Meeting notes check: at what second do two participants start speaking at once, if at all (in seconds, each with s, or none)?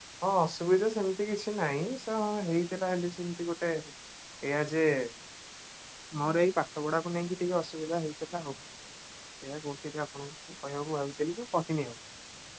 none